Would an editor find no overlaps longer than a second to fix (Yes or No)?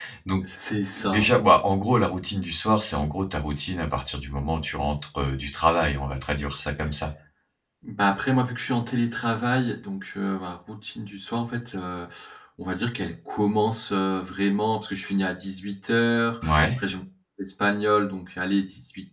Yes